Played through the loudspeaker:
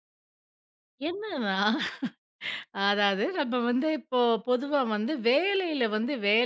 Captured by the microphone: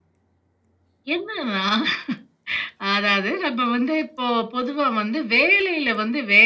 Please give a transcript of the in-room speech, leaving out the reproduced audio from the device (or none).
none